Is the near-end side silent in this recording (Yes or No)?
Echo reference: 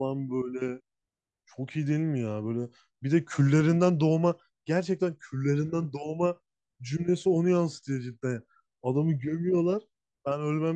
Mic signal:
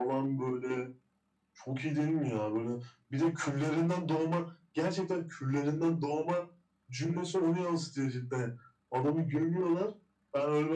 Yes